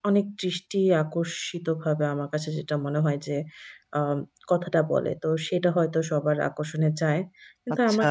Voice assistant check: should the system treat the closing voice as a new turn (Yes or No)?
No